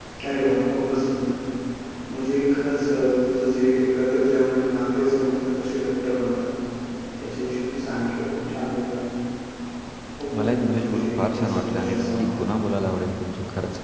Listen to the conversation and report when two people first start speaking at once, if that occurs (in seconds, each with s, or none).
10.3 s